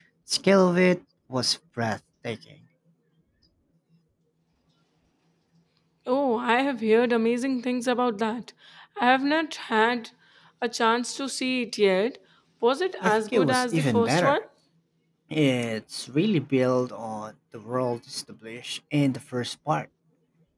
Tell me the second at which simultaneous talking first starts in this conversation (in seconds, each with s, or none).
13.0 s